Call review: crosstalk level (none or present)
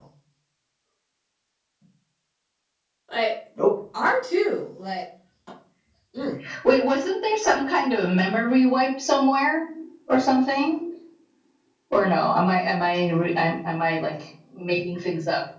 none